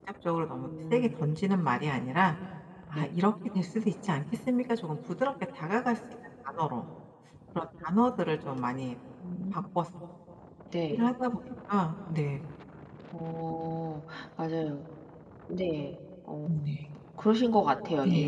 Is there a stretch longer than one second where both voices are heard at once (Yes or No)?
No